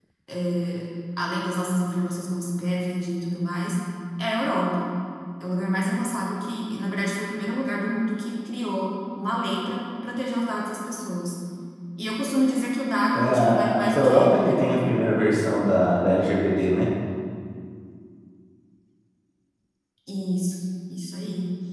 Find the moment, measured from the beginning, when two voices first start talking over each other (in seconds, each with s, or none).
13.2 s